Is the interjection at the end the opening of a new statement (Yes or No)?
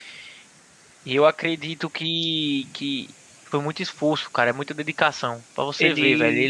No